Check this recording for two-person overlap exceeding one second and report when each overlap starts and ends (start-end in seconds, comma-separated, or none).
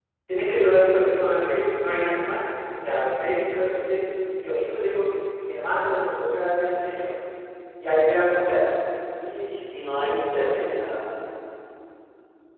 none